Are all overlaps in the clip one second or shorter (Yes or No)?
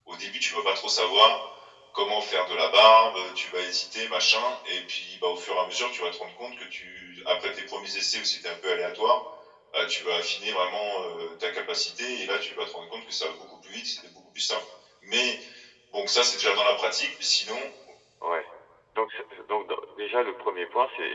Yes